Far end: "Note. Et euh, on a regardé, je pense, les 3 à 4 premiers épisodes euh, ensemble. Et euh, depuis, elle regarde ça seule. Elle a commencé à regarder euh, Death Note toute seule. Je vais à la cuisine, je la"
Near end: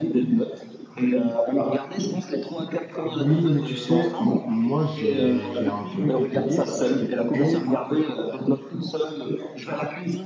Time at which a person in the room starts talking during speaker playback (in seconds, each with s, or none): 3.1 s